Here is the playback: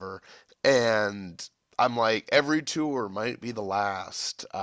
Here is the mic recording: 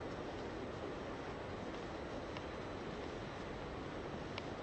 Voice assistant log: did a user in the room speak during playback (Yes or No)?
No